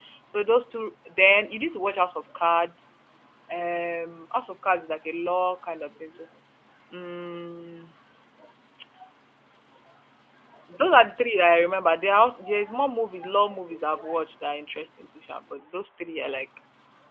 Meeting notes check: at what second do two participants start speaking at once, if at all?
none

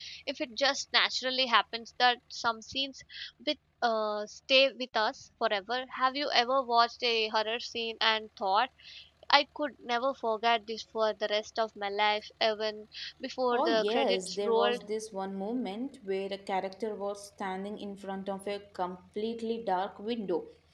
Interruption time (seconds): 13.5 s

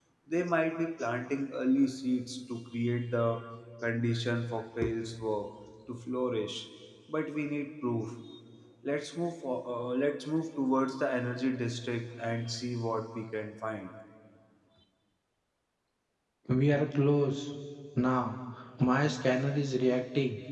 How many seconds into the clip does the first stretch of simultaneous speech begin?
none

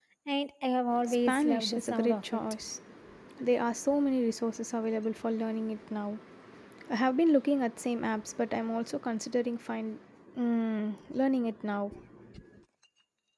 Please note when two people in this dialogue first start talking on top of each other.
1.0 s

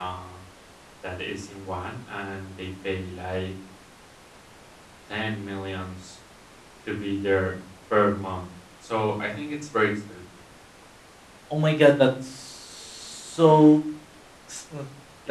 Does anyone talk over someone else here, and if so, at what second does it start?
none

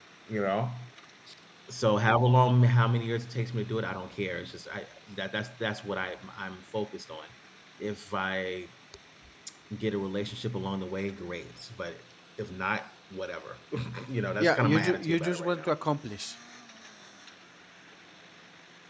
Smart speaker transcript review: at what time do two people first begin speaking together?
14.4 s

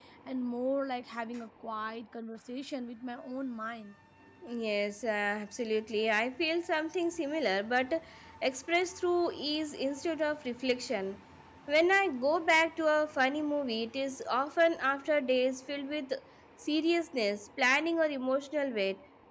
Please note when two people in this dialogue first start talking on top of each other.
none

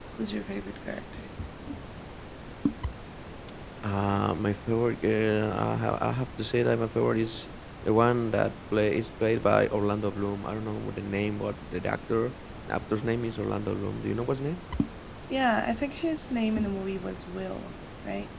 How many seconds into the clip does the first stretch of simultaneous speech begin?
none

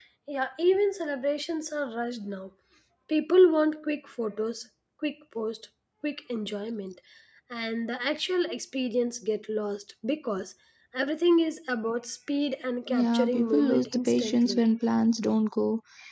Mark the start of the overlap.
12.9 s

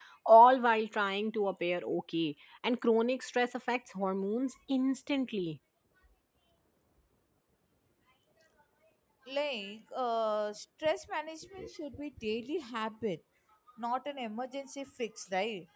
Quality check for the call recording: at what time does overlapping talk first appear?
none

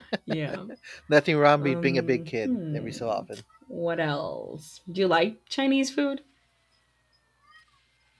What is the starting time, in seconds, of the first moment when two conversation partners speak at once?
1.6 s

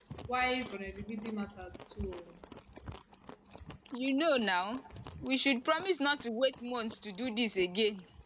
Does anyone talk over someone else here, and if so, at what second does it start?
none

